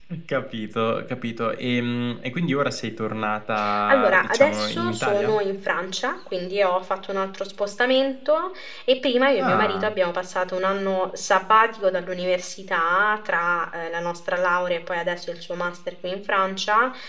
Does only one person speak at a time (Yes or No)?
No